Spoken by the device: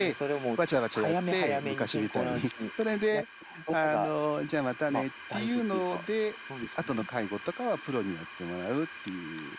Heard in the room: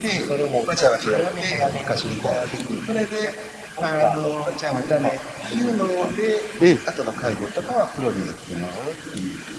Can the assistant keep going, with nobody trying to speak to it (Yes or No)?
No